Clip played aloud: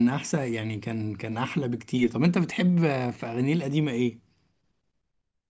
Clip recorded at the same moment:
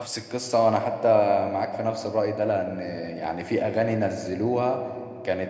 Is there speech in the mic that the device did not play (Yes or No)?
Yes